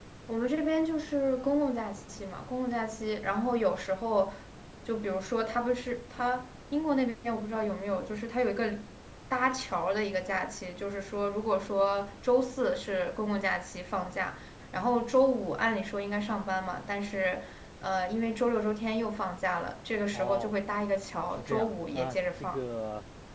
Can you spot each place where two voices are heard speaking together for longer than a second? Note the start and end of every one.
21.4-22.6

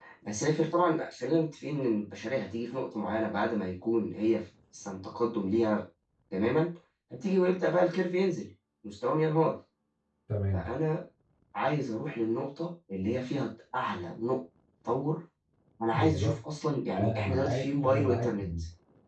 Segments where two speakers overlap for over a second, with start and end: 16.9-18.5

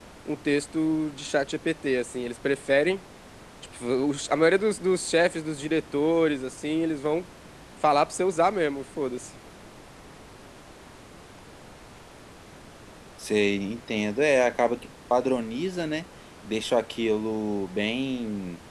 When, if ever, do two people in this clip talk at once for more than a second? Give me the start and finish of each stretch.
none

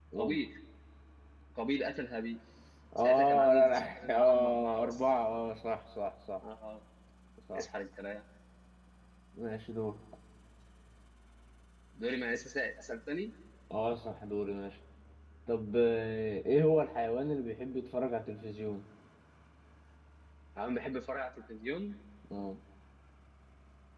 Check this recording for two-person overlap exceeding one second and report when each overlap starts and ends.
3.0-5.0

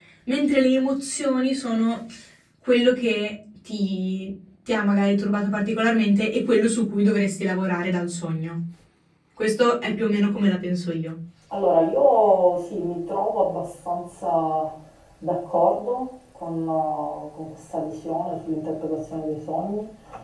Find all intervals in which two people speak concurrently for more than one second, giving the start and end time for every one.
none

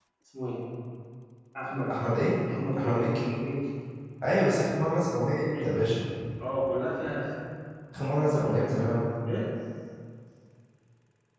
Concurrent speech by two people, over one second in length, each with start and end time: none

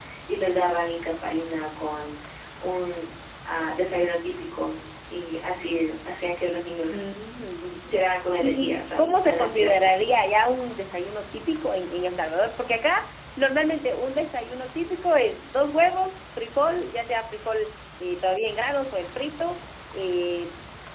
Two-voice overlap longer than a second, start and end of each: 8.4-10.0

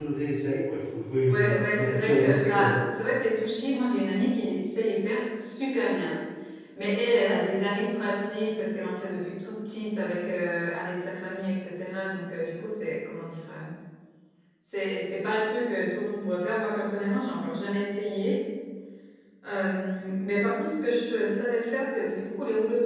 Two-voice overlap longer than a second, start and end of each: 1.3-2.8

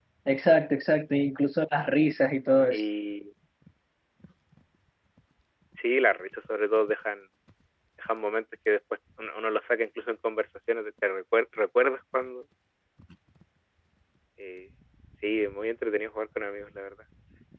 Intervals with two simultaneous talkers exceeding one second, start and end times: none

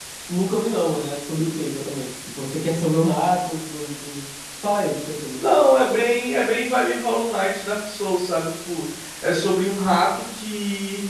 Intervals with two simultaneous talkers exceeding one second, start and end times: none

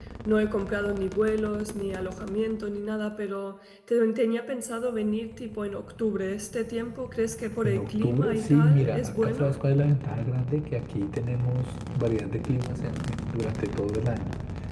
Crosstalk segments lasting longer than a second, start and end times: 7.6-9.5

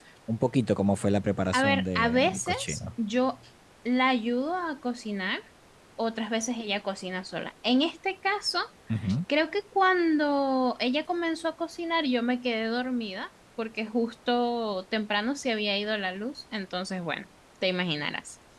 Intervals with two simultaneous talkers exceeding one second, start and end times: 1.5-2.8

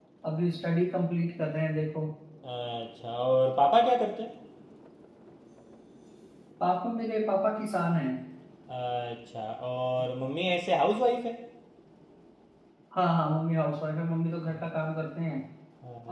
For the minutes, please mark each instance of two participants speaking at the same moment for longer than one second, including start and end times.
none

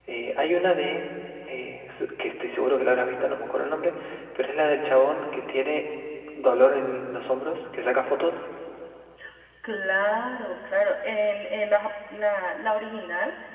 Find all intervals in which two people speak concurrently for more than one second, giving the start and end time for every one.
none

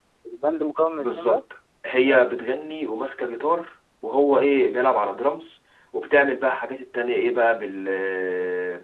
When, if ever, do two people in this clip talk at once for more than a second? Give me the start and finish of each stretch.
none

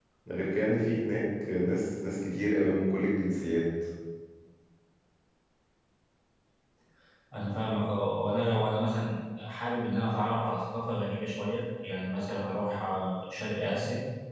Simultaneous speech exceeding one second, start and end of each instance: none

